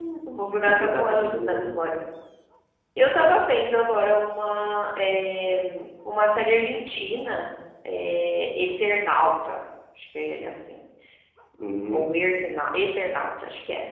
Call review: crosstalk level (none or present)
present